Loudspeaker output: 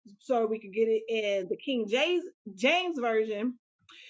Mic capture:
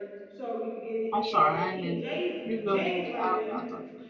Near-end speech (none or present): present